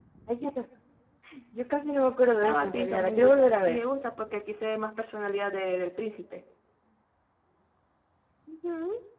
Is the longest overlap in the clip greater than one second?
Yes, from 2.4 s

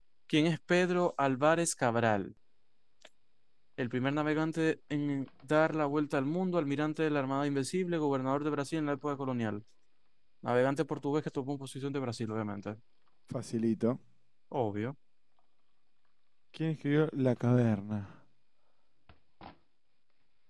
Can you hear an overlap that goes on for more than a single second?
No

